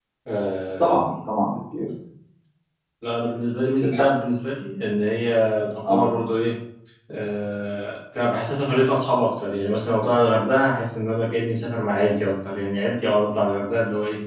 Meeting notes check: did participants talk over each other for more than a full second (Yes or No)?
No